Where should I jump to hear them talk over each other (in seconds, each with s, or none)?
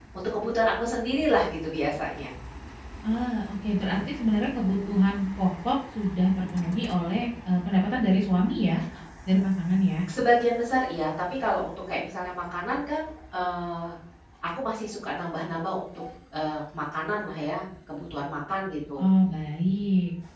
none